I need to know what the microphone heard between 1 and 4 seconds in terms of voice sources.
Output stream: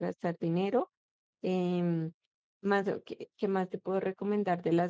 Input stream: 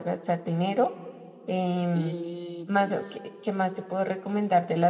both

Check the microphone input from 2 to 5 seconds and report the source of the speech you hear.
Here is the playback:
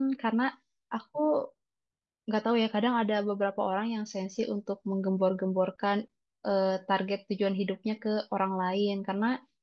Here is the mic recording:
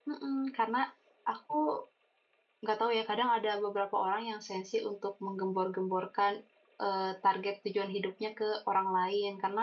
echo only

